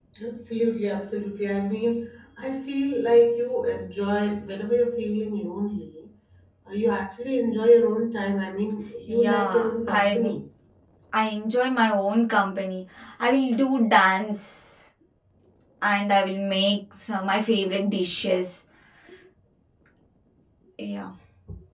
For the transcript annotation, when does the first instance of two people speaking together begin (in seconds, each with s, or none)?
9.1 s